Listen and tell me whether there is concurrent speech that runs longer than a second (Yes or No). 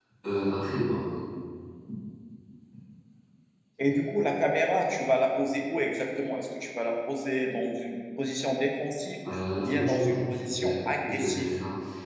Yes